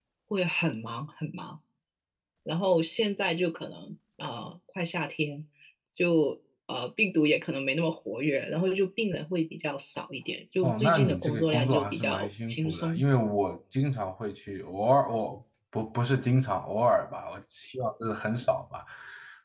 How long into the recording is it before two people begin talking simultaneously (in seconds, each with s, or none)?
10.6 s